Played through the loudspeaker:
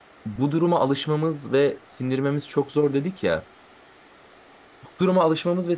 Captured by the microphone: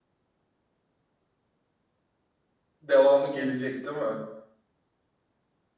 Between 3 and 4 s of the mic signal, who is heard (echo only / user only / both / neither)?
user only